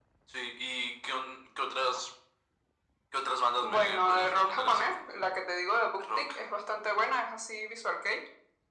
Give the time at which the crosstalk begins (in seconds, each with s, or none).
3.6 s